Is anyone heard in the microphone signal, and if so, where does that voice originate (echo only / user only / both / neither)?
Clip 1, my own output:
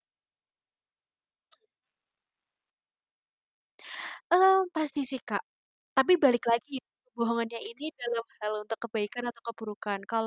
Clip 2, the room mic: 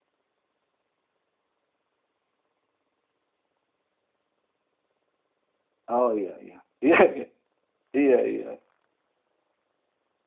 user only